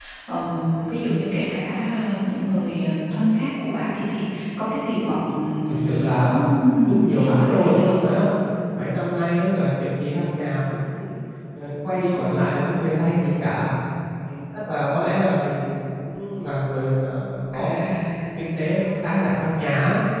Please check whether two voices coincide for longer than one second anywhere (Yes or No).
Yes